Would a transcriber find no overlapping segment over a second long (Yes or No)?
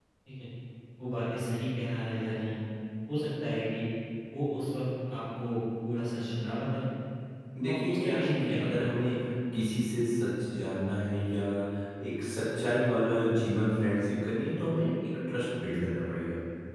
No